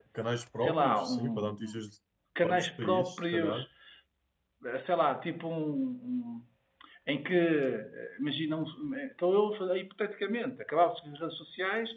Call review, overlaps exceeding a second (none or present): present